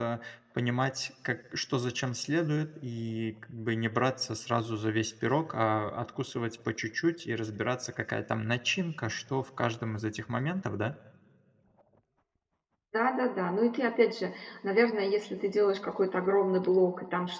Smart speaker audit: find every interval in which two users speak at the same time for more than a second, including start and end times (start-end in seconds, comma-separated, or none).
none